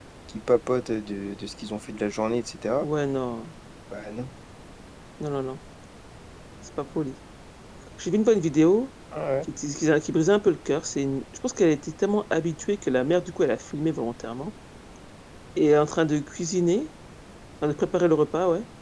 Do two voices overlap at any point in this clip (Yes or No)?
No